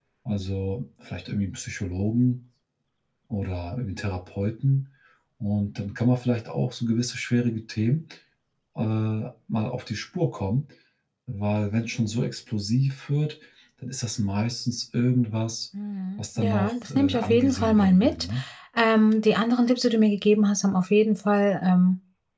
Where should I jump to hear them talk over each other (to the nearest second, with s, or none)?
16 s